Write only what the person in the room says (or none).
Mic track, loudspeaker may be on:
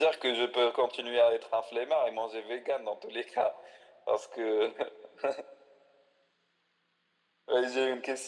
none